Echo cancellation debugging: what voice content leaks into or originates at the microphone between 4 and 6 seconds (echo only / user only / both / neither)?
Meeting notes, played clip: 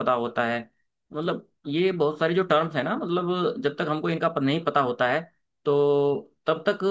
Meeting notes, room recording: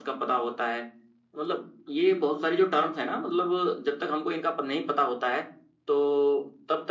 echo only